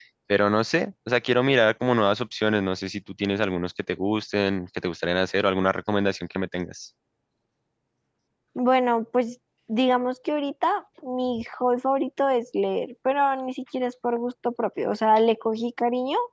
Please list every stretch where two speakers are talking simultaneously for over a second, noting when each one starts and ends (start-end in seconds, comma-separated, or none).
none